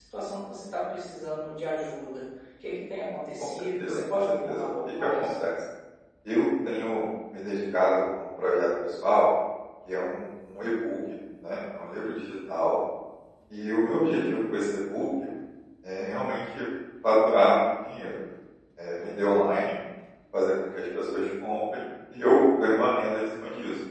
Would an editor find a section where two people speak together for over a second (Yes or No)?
Yes